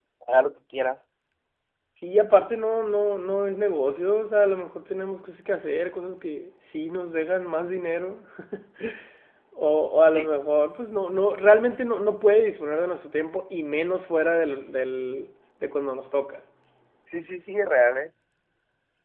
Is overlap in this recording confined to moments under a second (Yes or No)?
Yes